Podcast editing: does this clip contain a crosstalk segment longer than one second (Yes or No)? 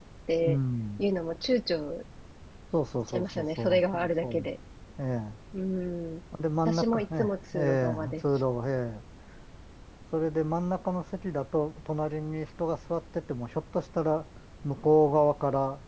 Yes